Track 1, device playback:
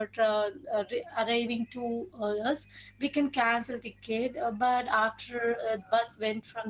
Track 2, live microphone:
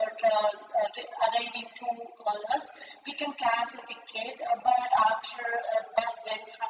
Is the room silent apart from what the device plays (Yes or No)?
Yes